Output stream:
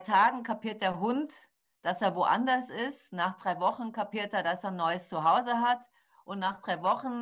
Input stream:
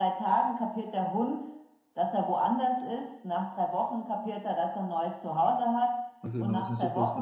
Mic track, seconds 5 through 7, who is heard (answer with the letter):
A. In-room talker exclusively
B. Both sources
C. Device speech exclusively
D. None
B